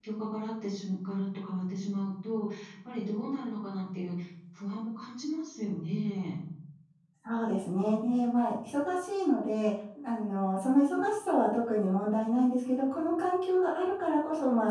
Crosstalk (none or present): none